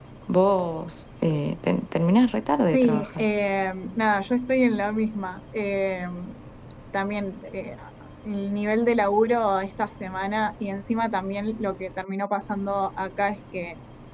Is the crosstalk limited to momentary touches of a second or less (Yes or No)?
Yes